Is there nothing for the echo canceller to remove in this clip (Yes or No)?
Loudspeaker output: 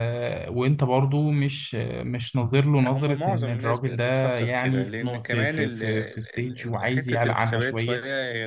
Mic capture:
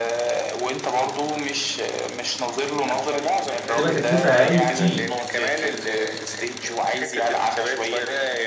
No